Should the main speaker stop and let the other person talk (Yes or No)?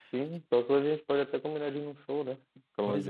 Yes